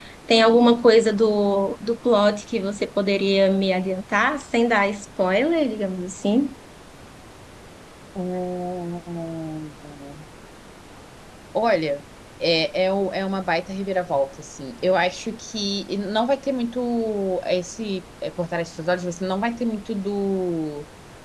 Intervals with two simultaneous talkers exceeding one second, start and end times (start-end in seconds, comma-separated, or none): none